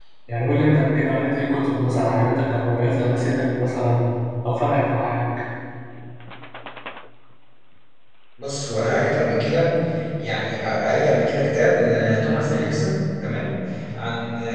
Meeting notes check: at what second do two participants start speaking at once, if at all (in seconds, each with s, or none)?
none